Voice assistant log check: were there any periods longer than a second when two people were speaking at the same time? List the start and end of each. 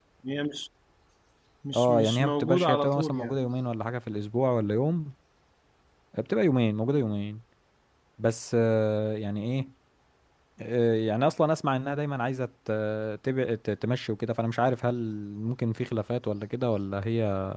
1.7-3.4

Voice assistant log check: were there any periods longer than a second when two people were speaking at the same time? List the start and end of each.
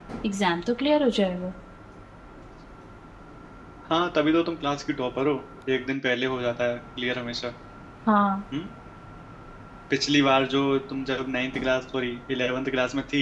none

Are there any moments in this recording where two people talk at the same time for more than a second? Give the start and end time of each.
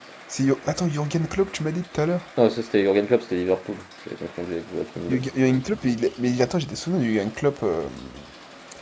none

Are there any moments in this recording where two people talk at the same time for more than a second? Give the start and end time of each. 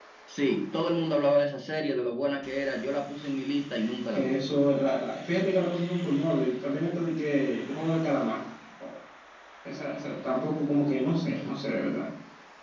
none

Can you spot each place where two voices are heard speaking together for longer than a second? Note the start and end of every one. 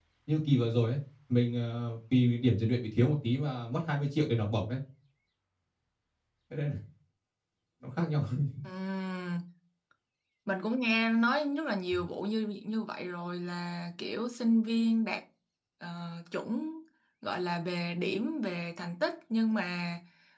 none

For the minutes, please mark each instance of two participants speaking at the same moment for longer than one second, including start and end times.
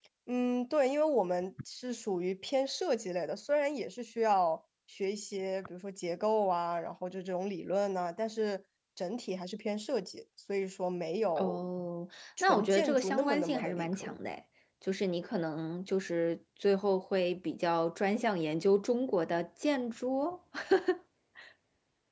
12.4-14.2

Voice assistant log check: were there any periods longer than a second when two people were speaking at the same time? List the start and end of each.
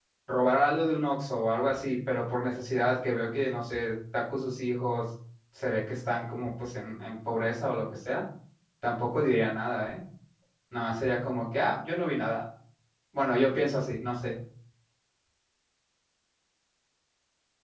none

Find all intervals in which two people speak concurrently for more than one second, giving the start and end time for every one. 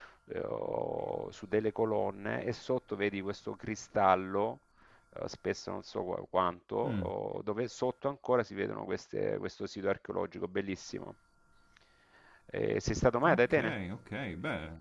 none

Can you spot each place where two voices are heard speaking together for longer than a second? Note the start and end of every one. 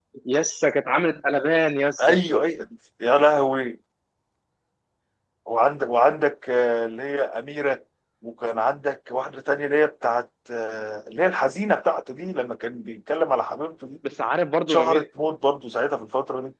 none

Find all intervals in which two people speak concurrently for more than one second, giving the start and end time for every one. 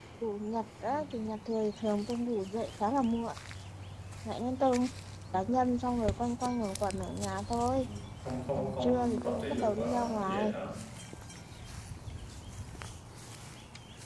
8.5-10.5

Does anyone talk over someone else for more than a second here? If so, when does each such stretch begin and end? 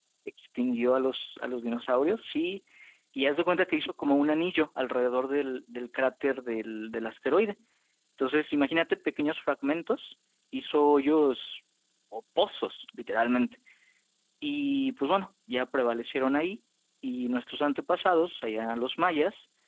none

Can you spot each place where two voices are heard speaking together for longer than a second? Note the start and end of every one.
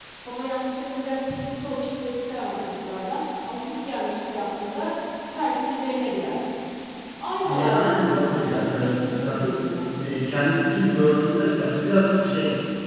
7.4-9.4

